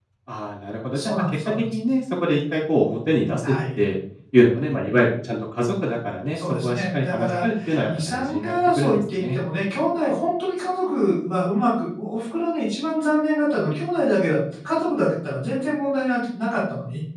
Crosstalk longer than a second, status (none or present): present